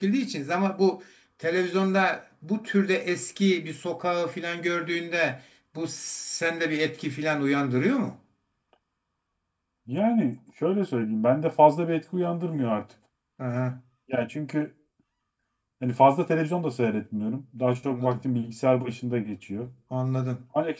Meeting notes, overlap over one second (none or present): none